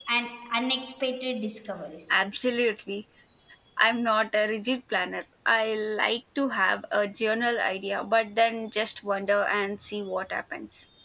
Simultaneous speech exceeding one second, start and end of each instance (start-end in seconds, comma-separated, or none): none